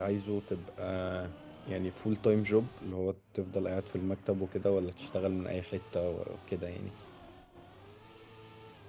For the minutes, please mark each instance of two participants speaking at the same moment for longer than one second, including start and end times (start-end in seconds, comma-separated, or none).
none